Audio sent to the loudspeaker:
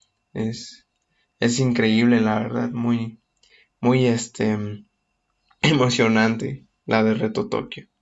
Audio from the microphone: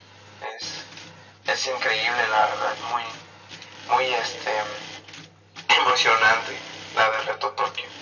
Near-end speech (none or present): none